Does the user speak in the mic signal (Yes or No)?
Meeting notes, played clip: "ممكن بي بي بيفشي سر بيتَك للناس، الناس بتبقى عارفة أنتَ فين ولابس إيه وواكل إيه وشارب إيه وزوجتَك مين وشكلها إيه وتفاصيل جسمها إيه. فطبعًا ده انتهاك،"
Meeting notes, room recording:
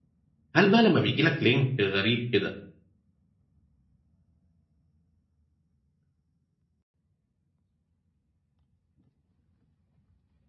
Yes